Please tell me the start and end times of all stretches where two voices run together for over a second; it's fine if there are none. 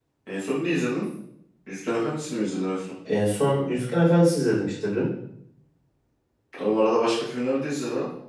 none

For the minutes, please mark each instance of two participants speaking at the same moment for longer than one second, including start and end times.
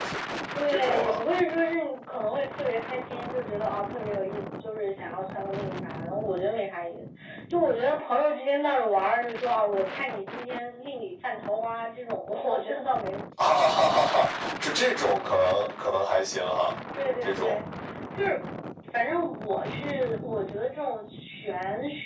none

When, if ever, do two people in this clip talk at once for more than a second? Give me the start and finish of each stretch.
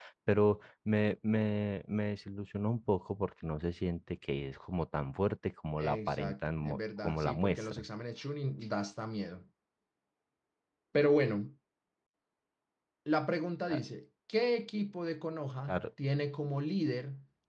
5.8-7.8

